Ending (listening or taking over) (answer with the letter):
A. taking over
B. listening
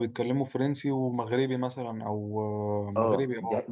A